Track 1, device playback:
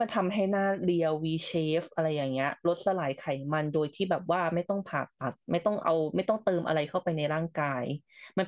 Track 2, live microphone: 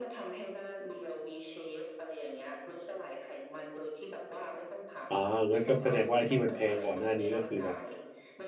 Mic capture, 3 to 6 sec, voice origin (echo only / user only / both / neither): both